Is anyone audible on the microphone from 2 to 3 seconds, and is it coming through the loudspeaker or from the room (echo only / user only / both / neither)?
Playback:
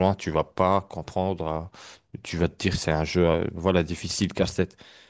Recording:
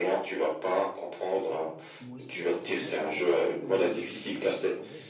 both